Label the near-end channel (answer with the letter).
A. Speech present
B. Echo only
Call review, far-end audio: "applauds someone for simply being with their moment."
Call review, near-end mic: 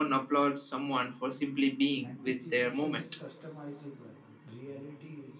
A